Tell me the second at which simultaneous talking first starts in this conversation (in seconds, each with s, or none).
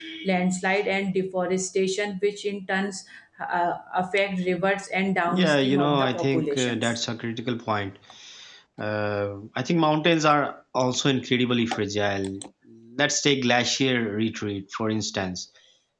5.3 s